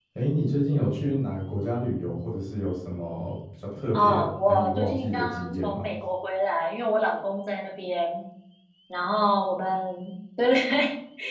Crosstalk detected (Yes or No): Yes